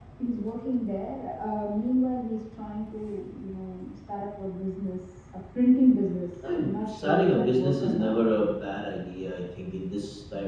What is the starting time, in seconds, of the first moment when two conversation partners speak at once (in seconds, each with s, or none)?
6.4 s